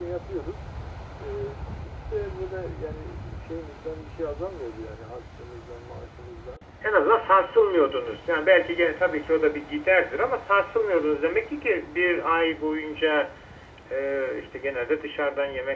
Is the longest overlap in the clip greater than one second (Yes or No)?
No